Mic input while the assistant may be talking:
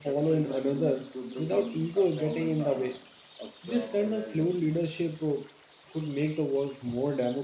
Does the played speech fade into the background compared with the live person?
Yes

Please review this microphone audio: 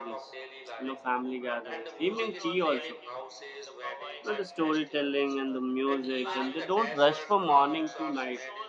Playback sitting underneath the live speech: Yes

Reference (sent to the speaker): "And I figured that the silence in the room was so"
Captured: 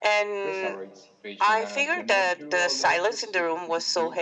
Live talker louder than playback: No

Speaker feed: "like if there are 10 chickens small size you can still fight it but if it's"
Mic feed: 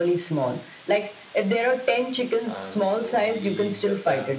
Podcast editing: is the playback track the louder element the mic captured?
Yes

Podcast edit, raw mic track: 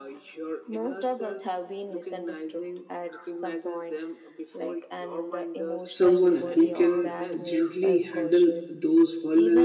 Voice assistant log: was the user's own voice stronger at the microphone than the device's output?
Yes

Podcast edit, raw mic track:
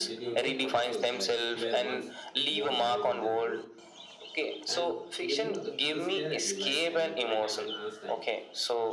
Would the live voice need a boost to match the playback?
Yes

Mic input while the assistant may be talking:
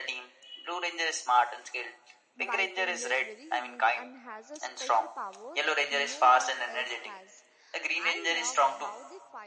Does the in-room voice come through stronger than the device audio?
No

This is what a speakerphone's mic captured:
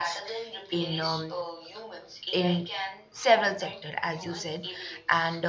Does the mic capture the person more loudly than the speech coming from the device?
Yes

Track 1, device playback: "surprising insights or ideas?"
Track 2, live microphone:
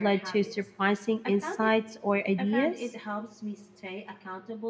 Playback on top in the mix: Yes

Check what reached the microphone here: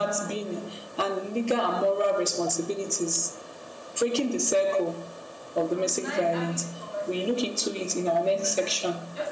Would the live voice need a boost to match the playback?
Yes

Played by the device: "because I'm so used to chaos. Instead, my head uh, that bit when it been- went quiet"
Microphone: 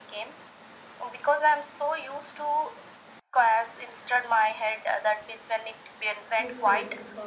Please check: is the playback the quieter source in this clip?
No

